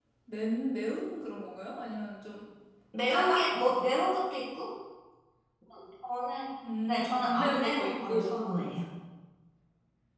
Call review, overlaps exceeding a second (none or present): present